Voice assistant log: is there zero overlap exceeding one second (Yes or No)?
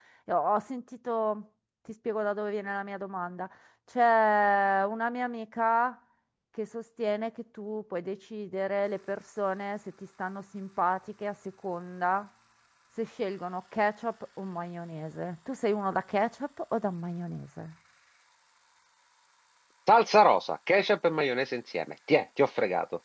Yes